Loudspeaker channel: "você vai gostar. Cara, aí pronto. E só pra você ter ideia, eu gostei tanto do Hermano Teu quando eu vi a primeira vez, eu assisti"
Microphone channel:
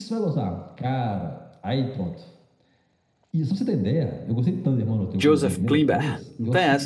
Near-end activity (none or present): present